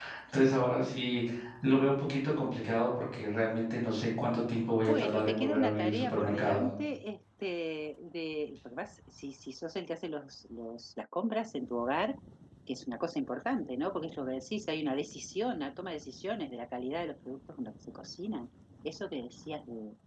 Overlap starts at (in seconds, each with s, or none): 4.9 s